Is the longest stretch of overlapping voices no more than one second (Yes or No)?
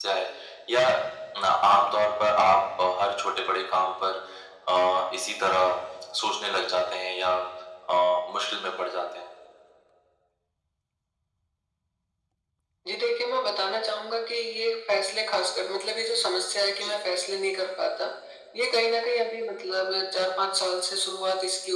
Yes